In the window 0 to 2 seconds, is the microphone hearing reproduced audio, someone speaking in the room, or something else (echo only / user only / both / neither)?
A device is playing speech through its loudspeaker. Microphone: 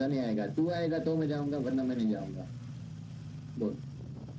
echo only